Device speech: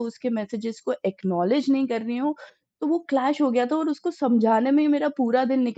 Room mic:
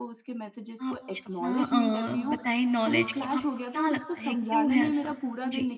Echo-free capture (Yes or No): No